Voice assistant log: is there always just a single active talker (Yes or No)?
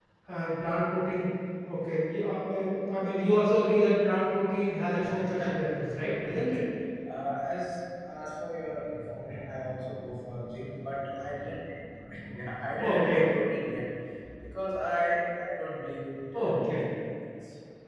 No